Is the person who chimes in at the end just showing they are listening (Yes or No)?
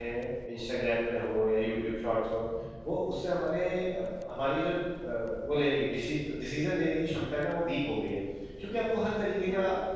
Yes